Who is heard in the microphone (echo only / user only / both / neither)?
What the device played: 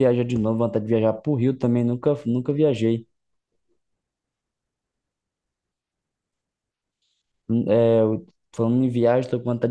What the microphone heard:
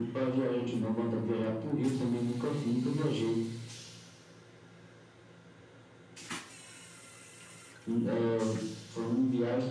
echo only